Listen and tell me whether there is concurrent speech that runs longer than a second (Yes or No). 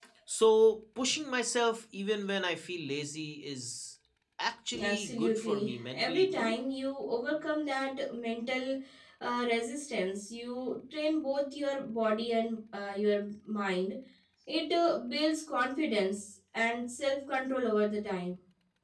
Yes